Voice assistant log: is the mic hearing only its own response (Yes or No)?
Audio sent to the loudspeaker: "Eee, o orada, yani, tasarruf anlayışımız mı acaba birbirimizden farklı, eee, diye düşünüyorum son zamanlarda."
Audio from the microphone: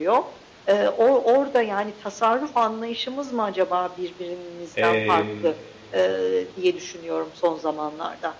No